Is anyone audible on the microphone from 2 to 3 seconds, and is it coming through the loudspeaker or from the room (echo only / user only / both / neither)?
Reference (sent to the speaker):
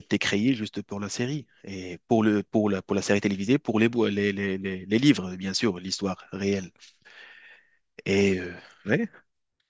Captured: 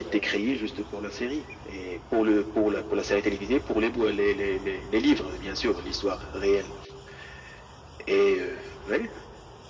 echo only